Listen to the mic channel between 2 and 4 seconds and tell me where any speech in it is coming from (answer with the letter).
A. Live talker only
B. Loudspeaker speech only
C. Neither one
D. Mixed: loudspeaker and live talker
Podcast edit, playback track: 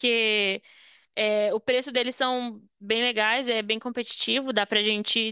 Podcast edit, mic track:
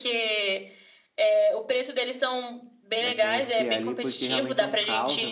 D